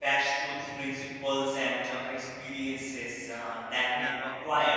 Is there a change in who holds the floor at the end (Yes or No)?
No